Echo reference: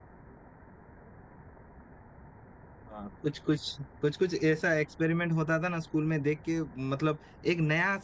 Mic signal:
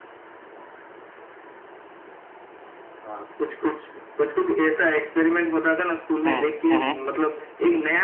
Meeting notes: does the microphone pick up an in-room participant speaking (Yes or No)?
Yes